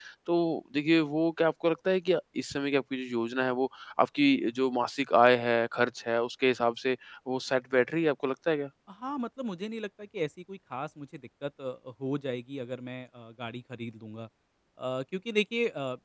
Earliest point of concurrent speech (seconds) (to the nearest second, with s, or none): none